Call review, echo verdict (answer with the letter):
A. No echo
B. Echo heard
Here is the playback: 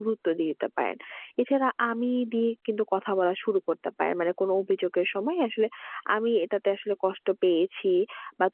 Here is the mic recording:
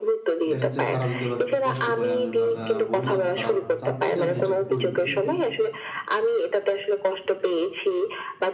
B